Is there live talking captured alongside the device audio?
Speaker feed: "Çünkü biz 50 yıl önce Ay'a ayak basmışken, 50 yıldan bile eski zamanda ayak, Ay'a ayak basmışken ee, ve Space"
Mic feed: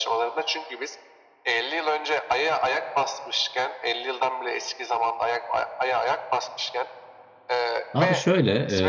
Yes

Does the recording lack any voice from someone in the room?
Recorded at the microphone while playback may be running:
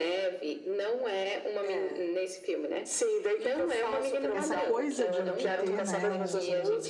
No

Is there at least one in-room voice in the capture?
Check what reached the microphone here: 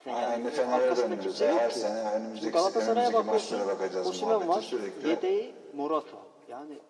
Yes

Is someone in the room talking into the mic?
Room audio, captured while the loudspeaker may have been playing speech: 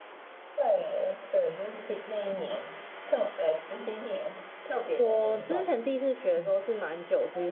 Yes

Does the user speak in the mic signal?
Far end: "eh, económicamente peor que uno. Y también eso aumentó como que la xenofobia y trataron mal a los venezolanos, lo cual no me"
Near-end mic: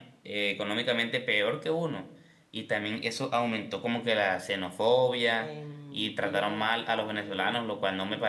Yes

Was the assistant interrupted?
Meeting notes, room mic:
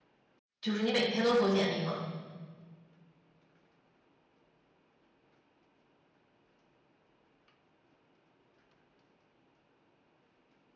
Yes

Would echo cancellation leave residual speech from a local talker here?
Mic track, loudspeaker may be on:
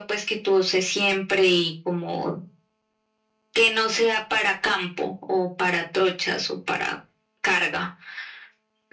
No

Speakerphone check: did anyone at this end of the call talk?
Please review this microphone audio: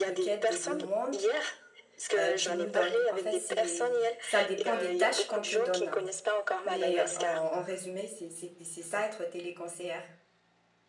Yes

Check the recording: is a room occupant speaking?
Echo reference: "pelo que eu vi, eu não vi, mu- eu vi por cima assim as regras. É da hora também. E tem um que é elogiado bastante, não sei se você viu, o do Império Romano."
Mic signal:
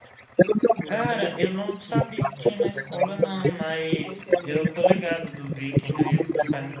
Yes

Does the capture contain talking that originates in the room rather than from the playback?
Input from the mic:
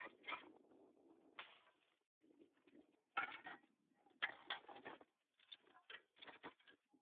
No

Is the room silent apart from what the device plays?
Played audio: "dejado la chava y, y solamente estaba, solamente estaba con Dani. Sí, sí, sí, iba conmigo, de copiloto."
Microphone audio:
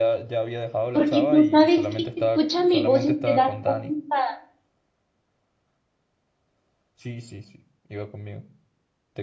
No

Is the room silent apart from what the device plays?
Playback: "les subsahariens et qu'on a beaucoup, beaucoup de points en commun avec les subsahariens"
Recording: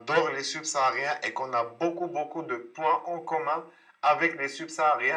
Yes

